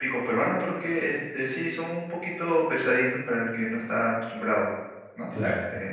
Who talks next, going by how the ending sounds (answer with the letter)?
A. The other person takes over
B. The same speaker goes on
B